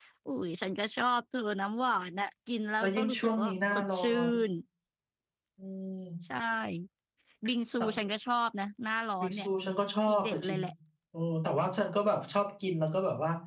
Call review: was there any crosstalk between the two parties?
Yes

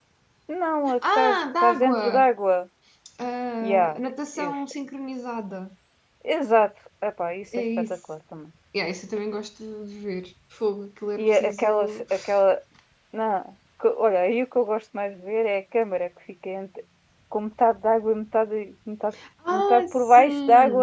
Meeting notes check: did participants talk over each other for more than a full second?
Yes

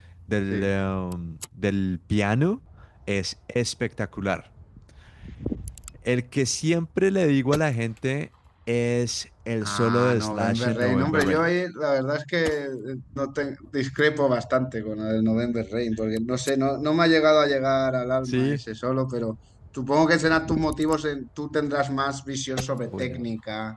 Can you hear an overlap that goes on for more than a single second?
Yes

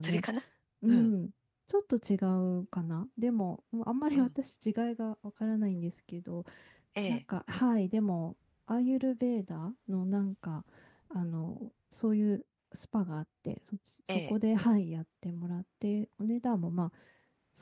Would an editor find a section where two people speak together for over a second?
No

